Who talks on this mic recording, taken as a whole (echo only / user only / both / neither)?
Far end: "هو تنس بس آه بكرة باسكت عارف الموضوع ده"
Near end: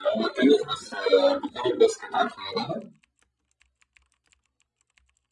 echo only